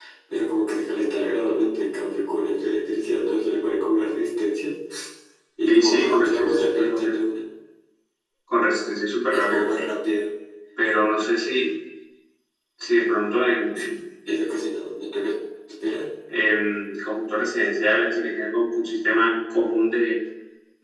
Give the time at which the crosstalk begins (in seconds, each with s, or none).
5.7 s